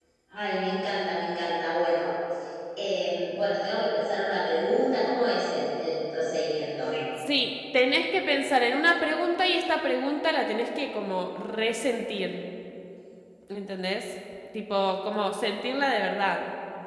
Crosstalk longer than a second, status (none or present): none